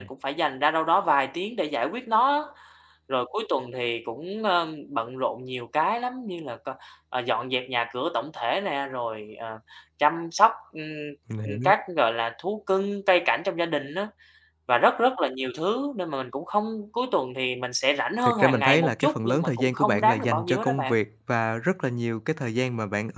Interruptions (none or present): present